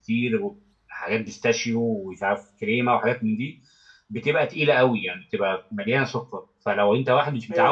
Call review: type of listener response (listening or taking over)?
listening